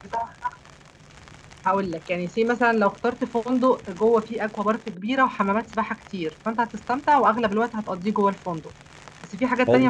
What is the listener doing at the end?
listening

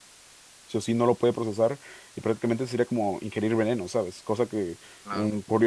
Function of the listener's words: listening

